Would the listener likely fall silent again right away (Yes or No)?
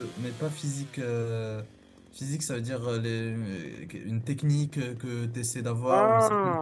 Yes